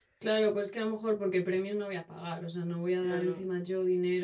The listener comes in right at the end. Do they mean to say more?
No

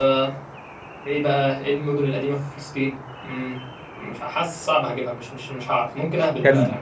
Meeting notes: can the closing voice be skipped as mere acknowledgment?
No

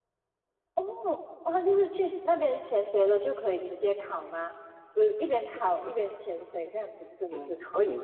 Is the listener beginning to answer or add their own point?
Yes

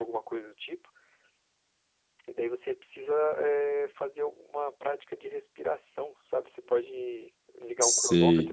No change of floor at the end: No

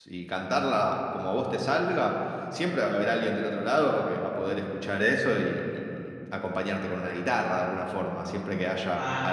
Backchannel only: Yes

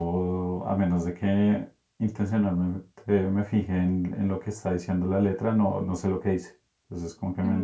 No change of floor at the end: No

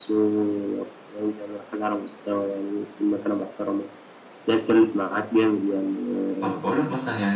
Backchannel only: No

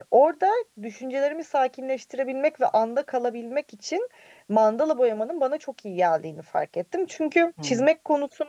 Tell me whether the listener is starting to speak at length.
No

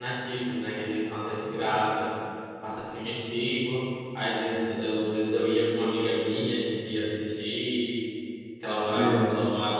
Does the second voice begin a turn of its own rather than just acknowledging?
No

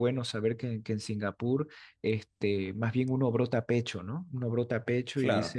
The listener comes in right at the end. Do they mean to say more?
No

